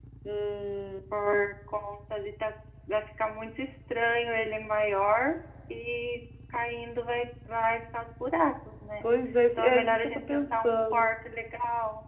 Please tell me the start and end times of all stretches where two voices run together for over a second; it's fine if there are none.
9.6-11.1

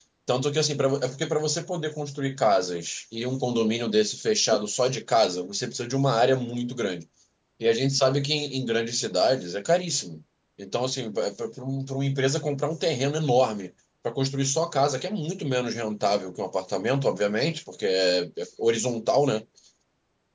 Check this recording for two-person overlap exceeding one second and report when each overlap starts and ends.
none

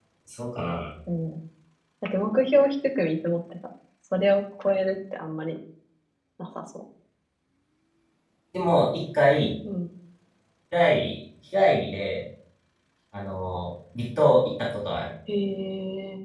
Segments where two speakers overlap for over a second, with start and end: none

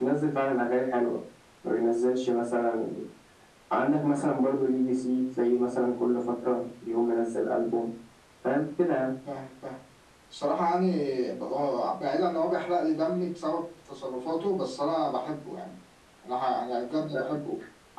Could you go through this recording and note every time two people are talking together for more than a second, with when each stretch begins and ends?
none

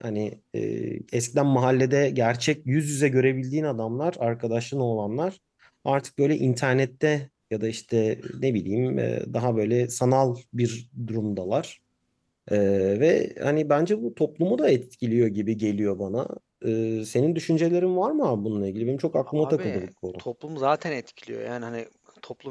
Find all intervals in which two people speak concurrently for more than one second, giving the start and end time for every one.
none

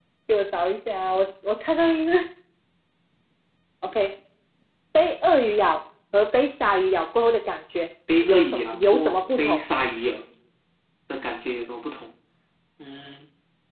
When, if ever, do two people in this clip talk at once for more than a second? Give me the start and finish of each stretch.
8.2-9.6

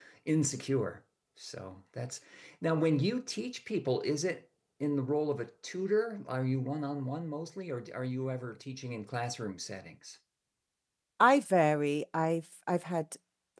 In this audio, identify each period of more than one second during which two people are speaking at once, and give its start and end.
none

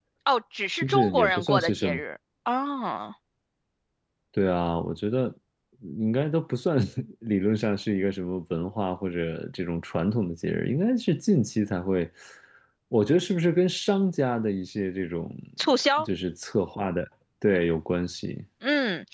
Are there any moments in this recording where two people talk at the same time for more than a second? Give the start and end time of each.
0.7-2.0

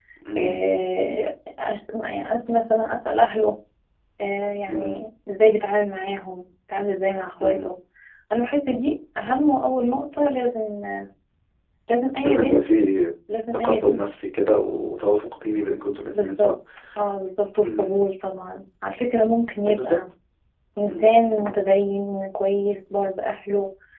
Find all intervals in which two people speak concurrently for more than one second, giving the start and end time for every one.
none

